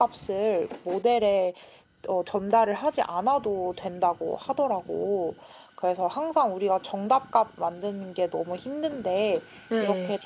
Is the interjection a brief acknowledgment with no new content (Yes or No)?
Yes